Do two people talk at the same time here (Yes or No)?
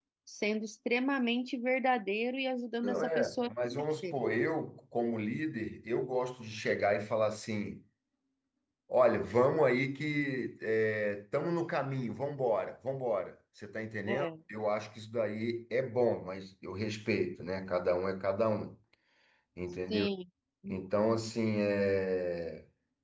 Yes